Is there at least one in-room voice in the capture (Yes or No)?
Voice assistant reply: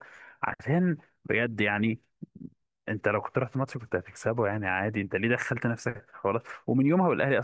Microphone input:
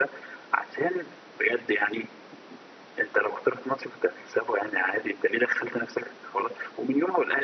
No